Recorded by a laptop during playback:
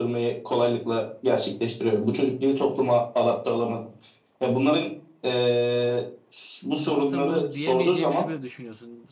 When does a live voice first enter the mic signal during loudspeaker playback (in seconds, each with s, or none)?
6.8 s